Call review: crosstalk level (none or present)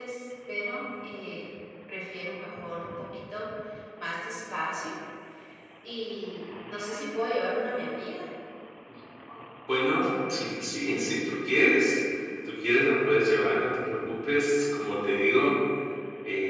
none